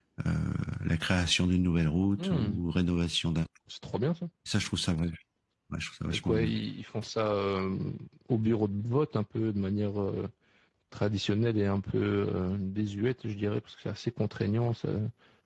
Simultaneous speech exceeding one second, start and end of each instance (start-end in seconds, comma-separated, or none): none